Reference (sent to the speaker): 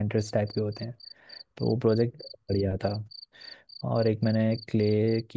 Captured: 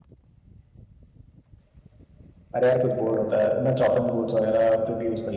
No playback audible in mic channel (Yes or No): Yes